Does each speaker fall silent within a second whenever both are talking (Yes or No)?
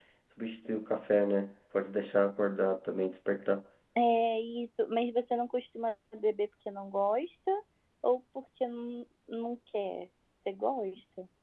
Yes